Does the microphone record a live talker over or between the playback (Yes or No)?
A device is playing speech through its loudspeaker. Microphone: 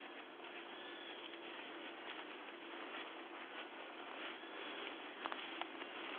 No